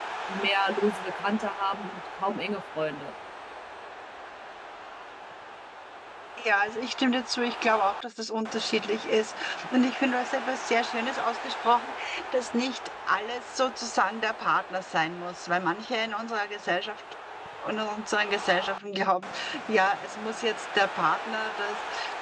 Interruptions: none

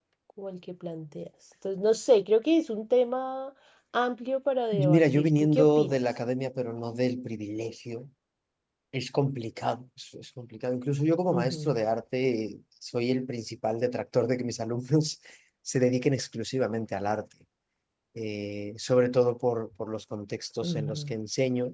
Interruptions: present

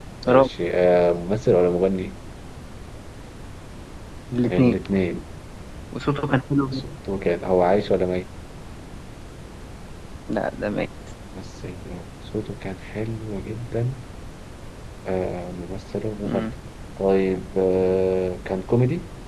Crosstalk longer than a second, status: none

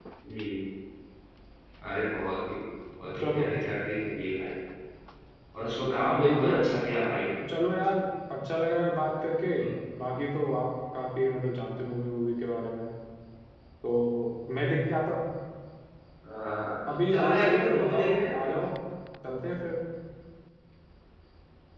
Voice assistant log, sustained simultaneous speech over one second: present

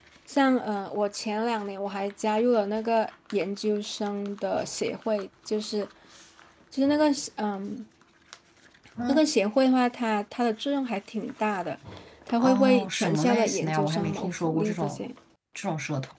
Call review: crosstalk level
present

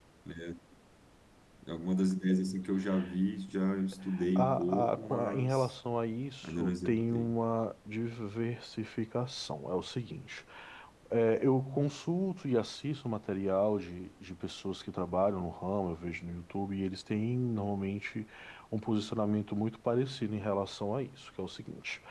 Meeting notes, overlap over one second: present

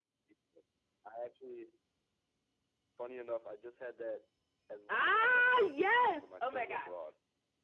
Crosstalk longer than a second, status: present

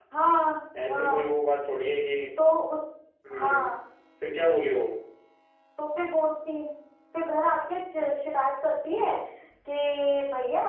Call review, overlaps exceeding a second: none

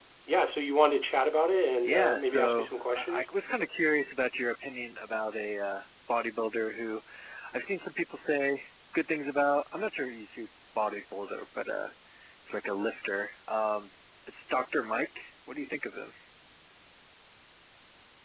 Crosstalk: present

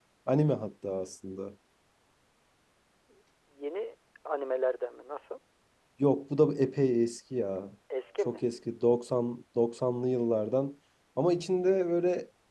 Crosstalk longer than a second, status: none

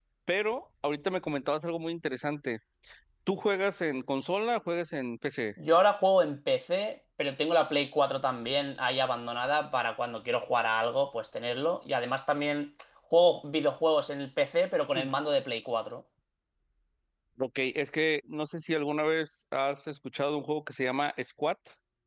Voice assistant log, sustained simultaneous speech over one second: none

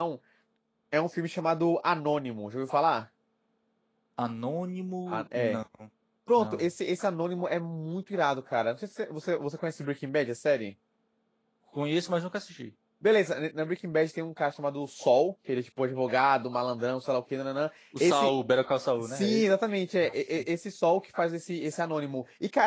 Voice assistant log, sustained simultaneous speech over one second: none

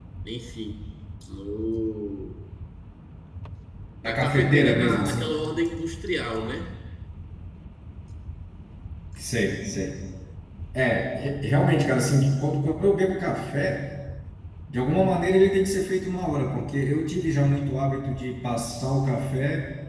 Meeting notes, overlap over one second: present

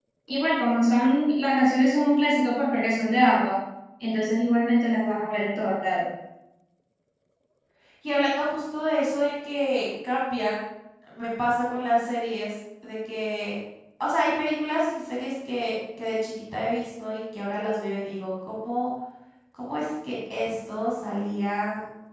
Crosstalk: none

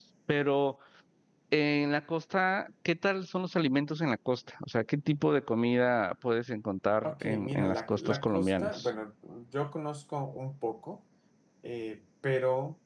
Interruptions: present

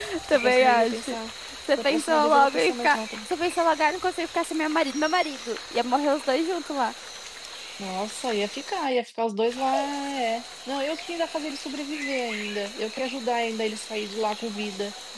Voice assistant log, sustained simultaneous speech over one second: present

